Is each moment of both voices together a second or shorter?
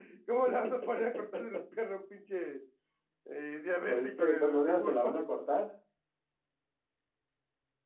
No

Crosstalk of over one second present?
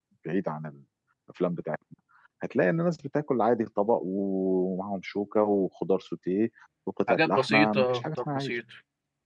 Yes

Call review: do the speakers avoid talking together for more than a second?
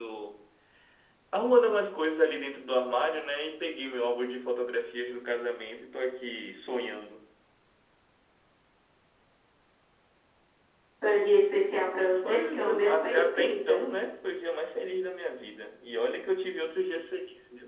No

